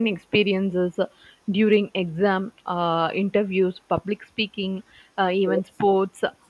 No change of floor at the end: Yes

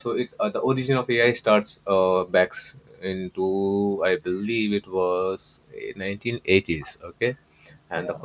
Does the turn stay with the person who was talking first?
Yes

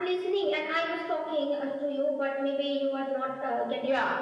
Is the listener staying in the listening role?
No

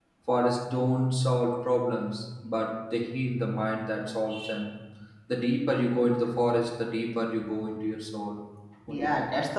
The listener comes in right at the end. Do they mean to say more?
Yes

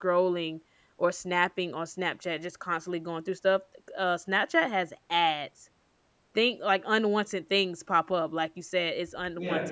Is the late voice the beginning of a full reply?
No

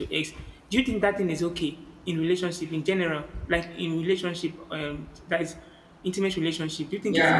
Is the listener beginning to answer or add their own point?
Yes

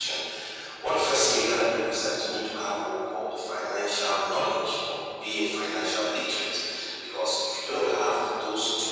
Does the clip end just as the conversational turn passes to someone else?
No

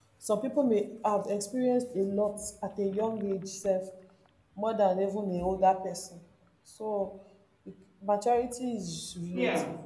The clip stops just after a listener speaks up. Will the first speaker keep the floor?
Yes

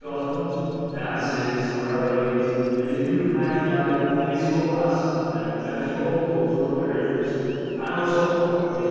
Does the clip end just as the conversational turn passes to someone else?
No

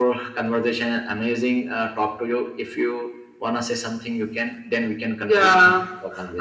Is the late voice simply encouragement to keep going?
No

